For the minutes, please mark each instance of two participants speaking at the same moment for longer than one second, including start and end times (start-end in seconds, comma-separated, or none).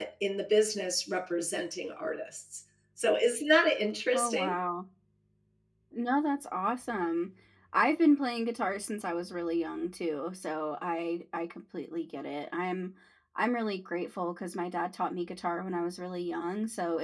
none